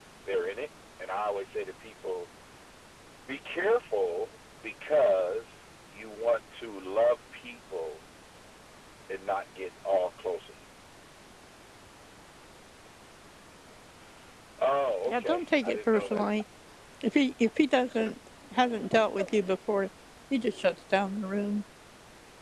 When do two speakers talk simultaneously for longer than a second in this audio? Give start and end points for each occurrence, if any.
15.1-16.3

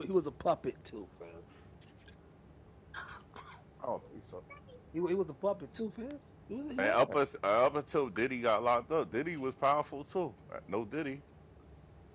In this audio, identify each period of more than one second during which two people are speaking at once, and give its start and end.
none

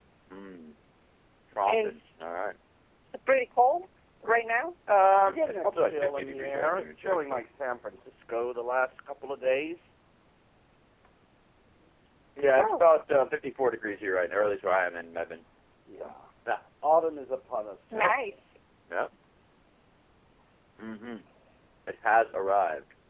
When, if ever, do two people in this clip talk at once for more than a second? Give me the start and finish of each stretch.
5.2-7.4

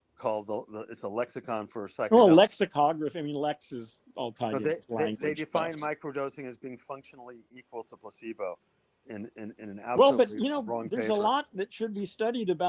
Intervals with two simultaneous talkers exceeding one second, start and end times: 4.5-5.7, 9.9-11.3

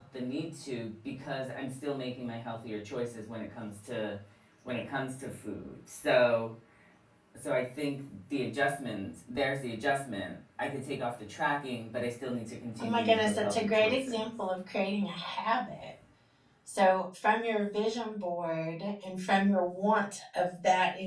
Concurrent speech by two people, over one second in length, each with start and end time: 12.8-14.2

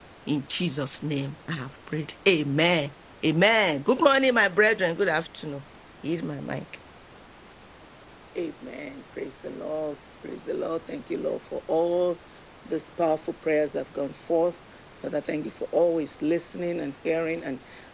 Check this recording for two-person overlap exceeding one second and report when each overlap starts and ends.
none

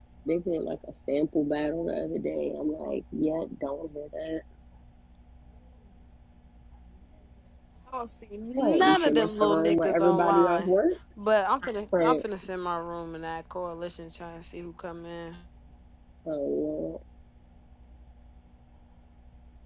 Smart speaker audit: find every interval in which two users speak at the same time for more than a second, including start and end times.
8.6-10.7

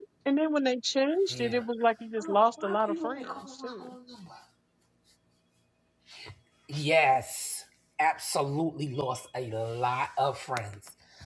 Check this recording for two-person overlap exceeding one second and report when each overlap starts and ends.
2.2-3.9

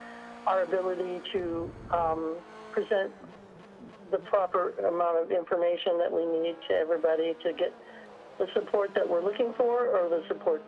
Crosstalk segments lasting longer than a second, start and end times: none

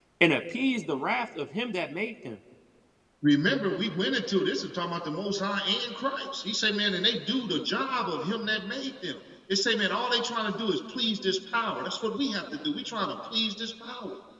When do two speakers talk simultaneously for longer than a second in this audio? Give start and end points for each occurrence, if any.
none

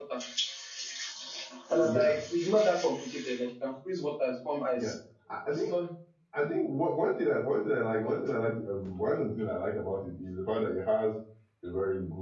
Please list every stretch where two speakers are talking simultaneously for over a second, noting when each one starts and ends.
none

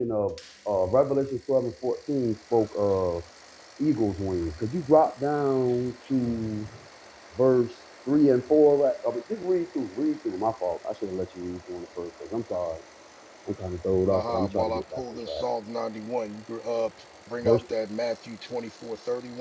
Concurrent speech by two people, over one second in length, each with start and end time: 14.1-15.4

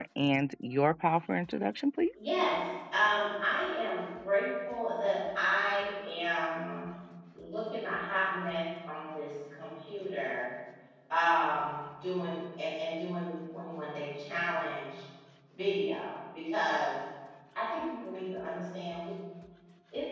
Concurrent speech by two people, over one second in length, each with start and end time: none

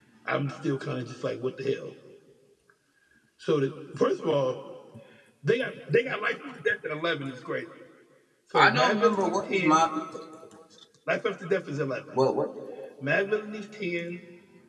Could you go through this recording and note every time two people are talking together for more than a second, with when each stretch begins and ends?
8.5-9.8

